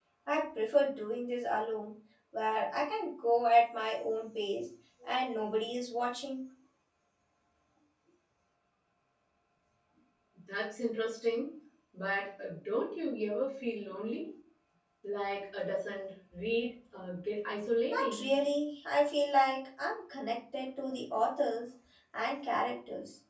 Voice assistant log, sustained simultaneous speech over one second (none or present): none